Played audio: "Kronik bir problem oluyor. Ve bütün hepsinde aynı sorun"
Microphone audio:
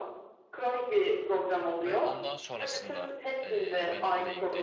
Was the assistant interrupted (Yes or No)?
Yes